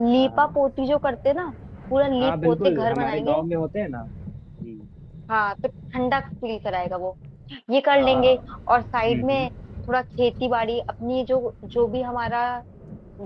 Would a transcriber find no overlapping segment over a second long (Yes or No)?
No